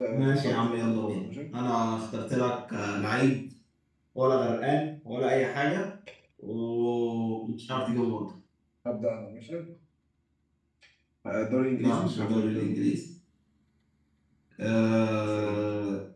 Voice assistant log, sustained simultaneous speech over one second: present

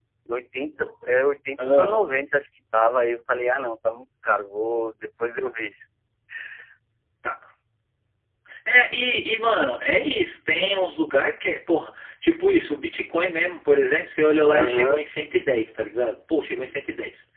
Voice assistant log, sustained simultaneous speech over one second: none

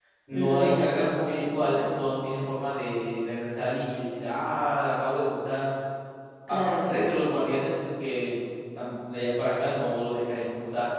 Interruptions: present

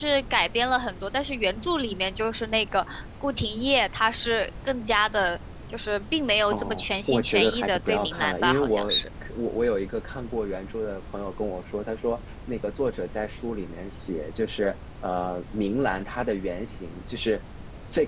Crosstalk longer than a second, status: present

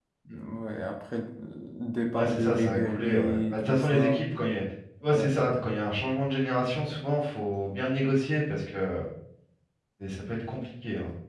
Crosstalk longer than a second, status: present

